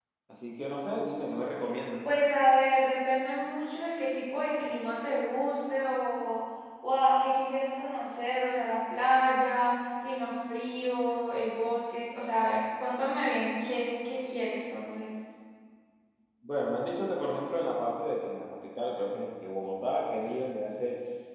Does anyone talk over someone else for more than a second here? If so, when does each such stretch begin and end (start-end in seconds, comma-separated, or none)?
none